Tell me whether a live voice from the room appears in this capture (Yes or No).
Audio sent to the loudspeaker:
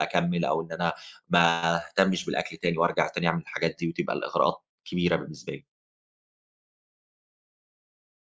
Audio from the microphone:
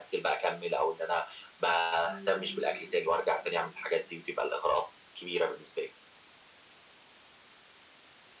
Yes